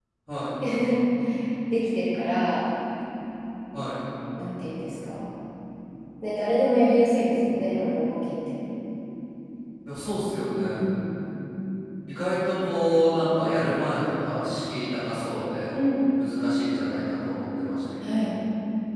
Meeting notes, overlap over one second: none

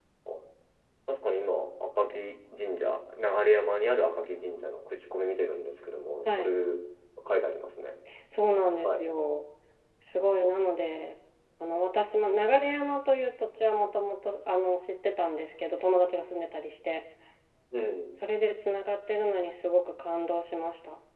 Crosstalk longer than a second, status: none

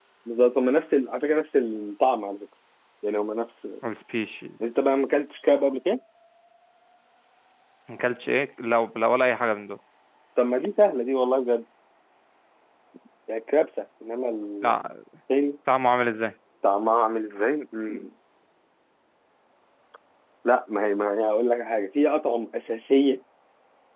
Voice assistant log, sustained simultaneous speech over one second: none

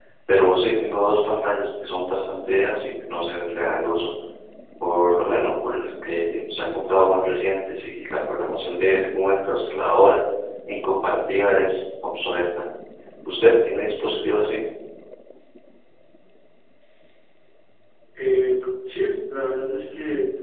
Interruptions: none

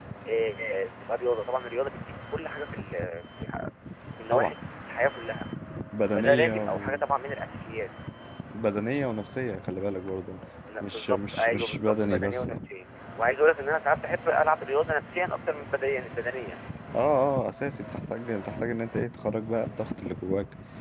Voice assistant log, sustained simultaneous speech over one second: present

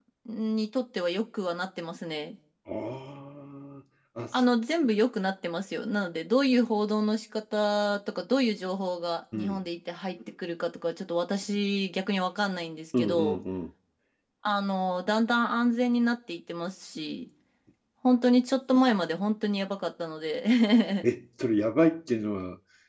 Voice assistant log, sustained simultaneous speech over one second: none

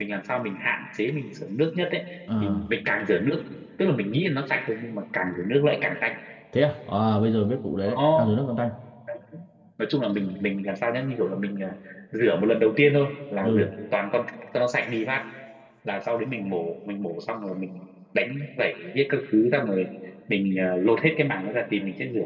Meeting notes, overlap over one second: none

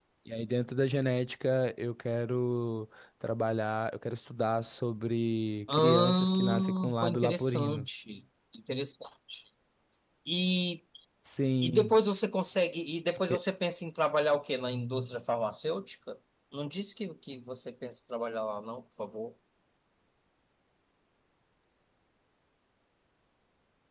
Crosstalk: present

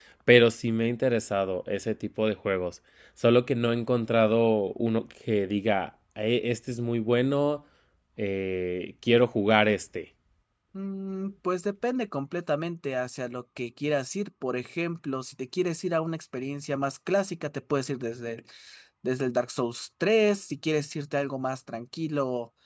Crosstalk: none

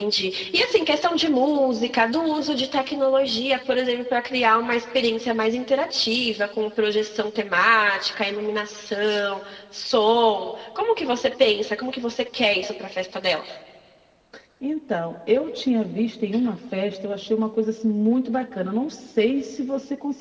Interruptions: none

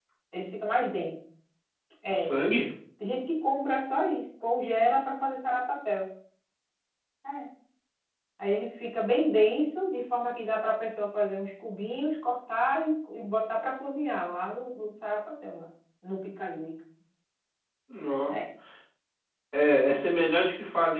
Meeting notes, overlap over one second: none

